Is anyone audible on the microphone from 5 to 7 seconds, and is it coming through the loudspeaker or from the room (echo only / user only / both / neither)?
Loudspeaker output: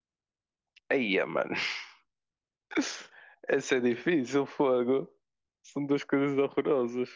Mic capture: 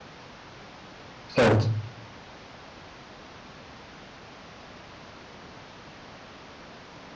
neither